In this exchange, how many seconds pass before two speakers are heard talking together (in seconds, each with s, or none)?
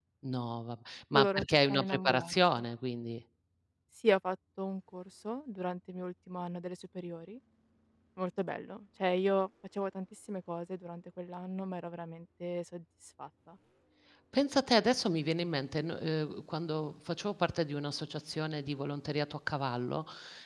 1.1 s